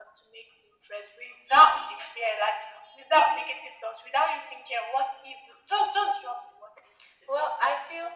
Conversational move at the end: taking over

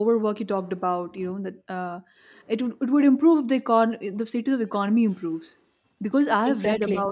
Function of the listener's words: listening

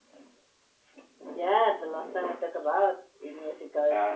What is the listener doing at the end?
taking over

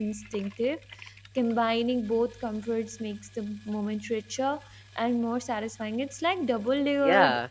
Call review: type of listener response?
taking over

